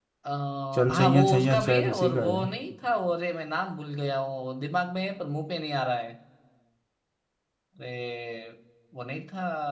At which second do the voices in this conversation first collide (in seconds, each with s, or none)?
0.9 s